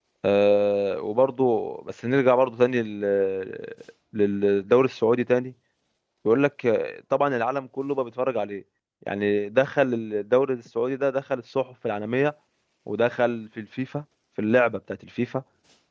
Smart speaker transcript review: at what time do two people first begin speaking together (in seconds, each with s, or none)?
none